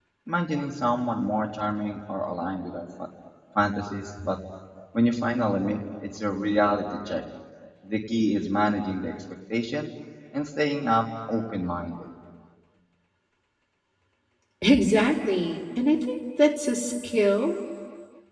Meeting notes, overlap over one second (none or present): none